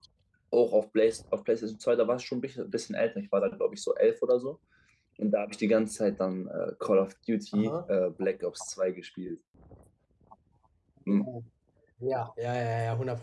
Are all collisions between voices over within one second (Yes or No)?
Yes